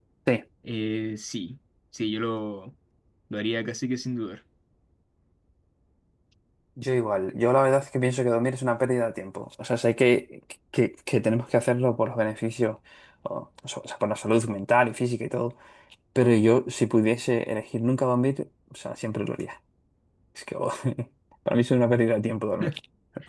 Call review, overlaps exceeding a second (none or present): none